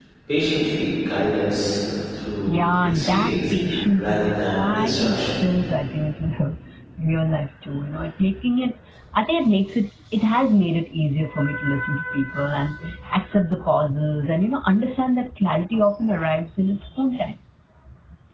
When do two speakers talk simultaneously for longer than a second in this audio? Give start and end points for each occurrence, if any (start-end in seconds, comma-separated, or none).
2.5-5.3